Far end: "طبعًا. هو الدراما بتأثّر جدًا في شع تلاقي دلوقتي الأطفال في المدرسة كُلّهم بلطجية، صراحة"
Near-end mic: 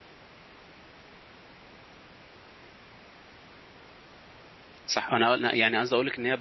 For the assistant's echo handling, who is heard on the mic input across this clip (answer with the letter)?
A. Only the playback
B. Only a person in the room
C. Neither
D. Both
B